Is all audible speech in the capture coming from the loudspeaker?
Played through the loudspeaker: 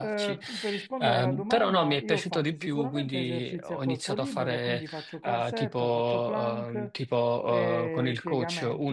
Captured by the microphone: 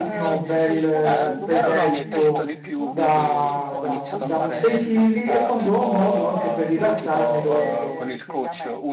No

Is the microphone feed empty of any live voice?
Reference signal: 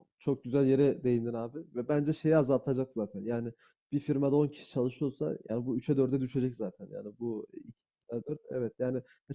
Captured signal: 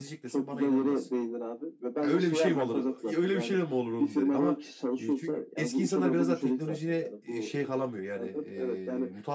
No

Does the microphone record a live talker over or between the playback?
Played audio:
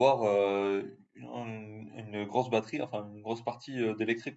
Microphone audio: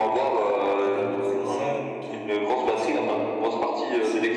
Yes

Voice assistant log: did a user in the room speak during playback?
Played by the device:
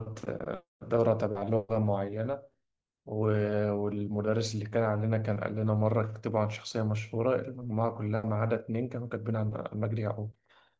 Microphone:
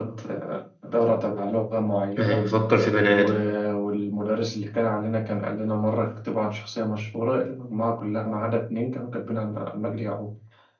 Yes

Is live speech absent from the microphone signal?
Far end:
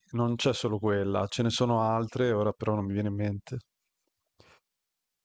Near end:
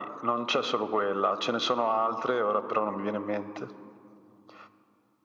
Yes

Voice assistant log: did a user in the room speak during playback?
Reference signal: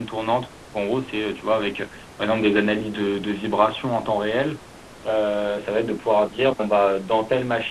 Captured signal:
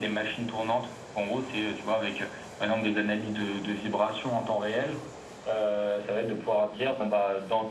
No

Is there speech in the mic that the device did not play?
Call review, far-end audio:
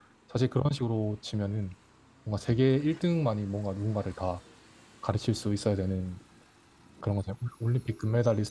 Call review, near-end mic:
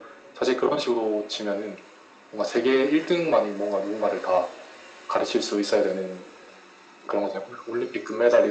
No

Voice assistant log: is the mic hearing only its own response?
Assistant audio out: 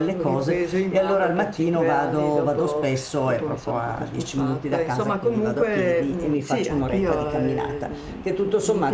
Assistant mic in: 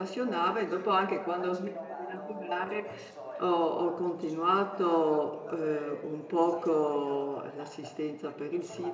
No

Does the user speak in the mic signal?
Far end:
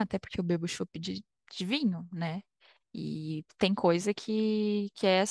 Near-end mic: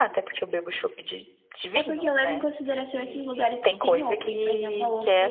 Yes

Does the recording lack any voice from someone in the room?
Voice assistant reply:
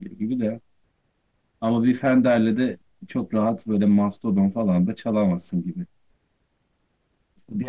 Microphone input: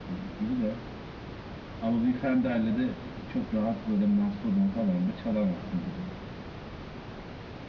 Yes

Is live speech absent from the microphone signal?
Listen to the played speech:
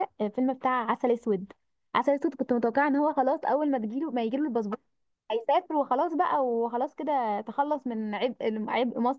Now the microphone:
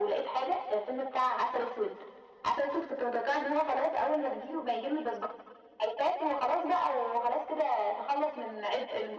Yes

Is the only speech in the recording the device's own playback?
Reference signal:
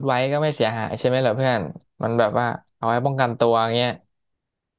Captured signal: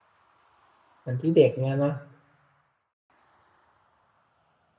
No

